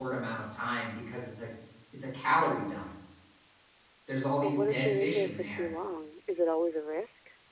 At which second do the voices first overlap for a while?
4.4 s

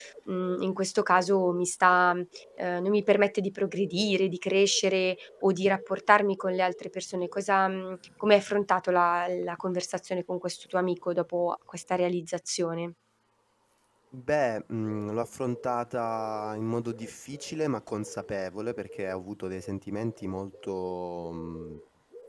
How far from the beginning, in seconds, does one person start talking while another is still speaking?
none

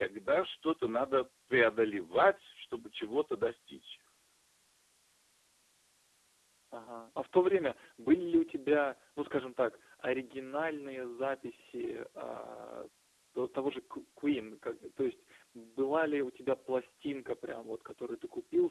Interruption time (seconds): none

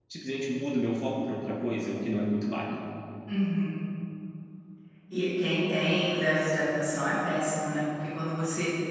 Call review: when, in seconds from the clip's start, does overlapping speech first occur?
none

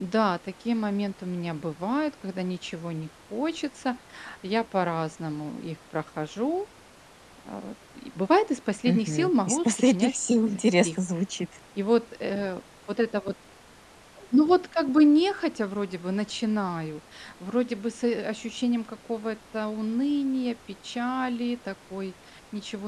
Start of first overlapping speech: 8.9 s

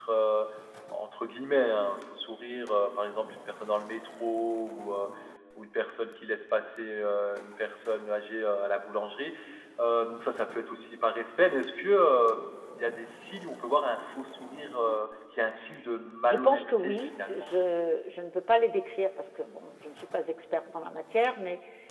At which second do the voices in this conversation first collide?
16.2 s

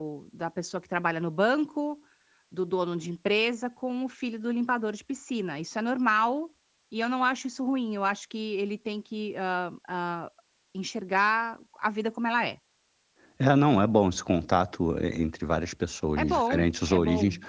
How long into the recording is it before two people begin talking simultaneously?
16.2 s

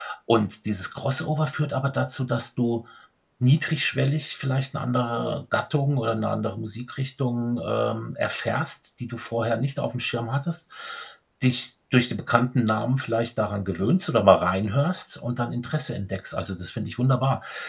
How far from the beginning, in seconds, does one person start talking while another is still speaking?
none

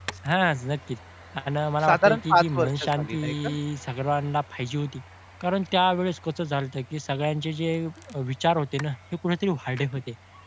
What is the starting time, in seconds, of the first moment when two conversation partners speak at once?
1.8 s

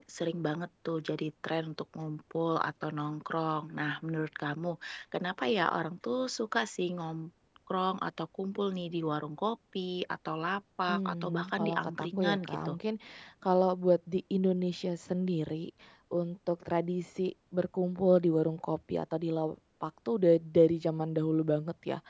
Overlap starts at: 10.9 s

